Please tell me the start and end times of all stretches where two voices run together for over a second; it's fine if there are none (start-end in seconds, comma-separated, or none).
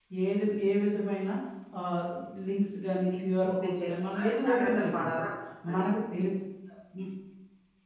3.4-5.1